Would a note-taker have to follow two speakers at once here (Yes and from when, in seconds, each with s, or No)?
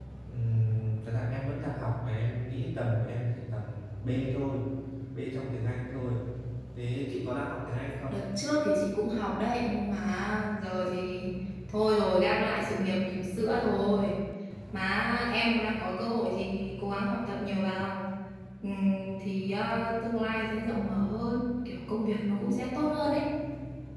No